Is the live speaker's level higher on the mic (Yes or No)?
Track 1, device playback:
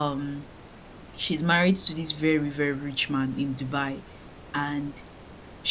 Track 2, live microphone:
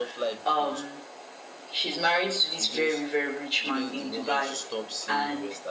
No